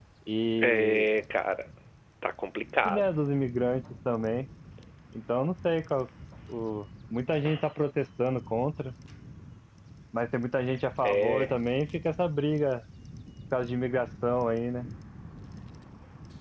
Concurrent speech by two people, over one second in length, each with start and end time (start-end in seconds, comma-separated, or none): none